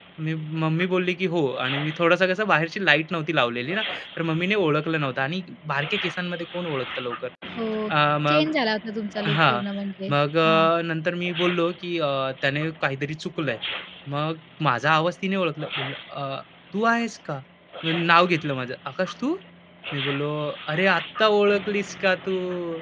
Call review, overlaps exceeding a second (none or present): none